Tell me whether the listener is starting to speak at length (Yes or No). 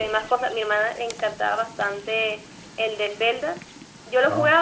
No